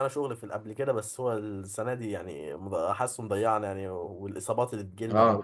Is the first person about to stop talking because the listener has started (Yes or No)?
Yes